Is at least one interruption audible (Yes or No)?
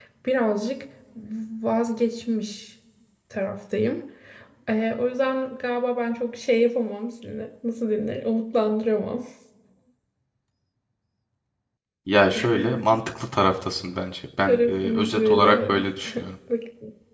Yes